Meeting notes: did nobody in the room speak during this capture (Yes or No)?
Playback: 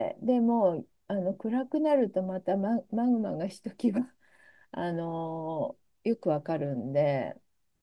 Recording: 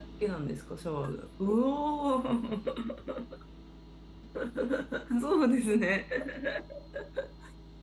No